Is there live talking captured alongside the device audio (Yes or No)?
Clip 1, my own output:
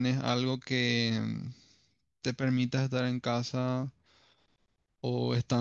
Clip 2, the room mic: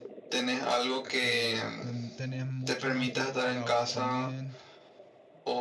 Yes